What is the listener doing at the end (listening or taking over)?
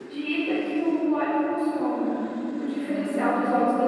listening